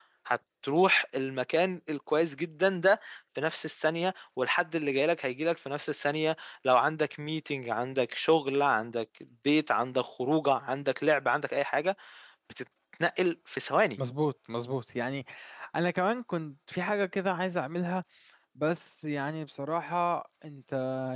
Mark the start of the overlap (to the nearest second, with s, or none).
none